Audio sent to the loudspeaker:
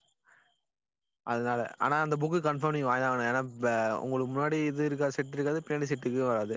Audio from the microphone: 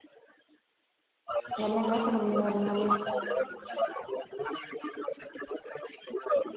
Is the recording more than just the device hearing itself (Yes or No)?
Yes